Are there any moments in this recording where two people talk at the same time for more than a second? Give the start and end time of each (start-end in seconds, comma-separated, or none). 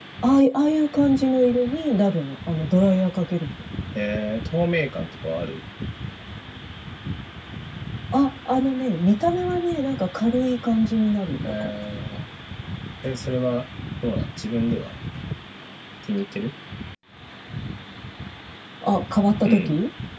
none